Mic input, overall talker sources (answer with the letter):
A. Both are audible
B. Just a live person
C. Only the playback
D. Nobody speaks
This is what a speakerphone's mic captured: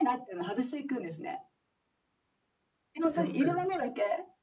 A